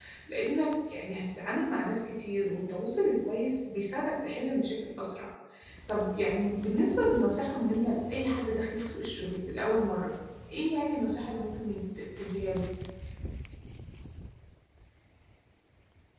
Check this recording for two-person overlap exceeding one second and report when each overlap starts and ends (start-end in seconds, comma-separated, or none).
none